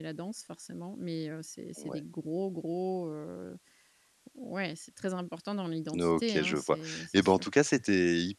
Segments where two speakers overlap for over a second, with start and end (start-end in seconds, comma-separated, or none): 6.0-7.4